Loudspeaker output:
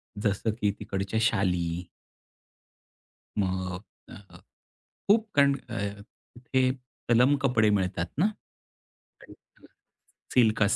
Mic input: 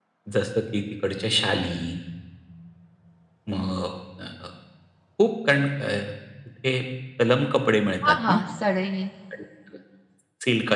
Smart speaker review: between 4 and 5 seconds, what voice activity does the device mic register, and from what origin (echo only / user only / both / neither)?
echo only